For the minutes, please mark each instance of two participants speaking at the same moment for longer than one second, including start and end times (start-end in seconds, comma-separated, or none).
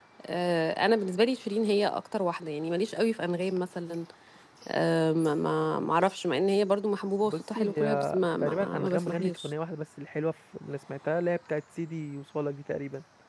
7.2-9.5